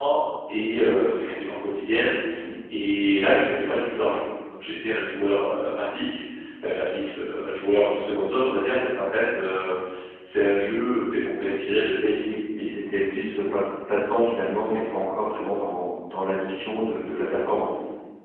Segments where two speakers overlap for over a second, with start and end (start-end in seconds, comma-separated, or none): none